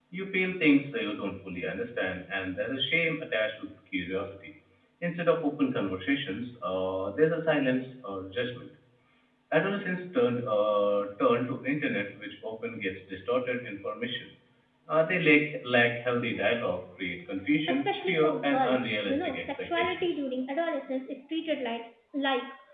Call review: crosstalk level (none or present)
present